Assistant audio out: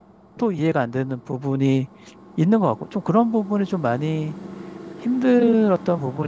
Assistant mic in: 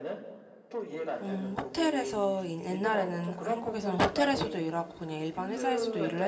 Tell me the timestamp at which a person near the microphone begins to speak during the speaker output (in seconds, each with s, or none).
1.2 s